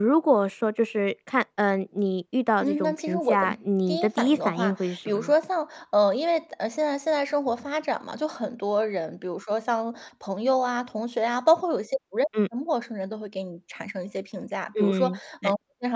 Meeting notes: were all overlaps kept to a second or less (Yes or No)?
No